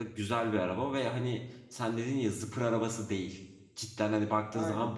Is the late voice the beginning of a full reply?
No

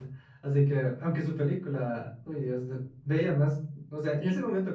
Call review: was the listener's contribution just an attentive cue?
Yes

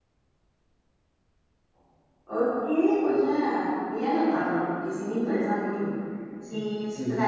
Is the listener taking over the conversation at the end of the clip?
No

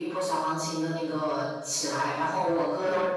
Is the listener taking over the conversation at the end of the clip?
No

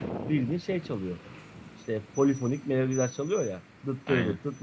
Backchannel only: Yes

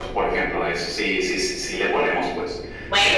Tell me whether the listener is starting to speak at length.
Yes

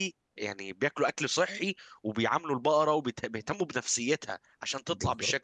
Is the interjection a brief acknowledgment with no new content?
No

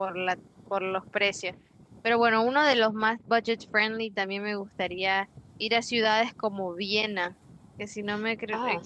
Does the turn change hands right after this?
No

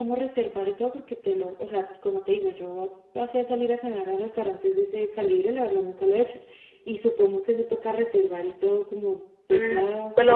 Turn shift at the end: Yes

